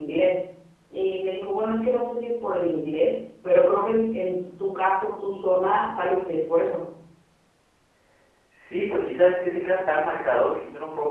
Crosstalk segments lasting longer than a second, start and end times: none

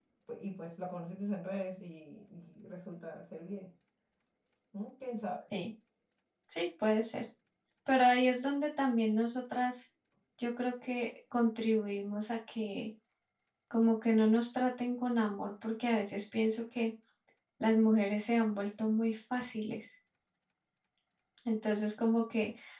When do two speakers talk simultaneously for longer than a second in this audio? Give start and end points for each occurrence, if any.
none

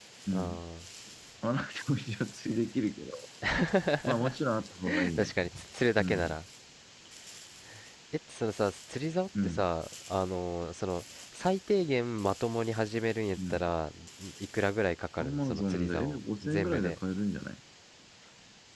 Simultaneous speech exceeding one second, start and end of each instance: 15.2-17.0

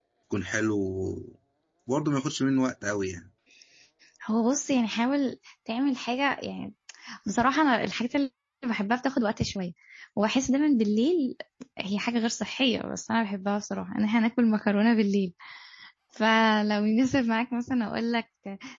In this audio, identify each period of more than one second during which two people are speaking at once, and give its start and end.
none

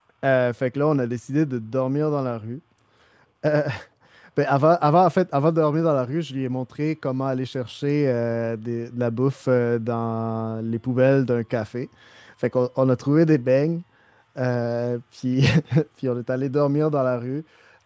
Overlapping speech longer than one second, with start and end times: none

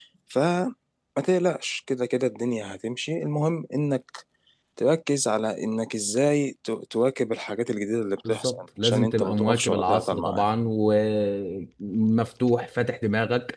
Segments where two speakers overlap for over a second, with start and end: 8.3-10.4

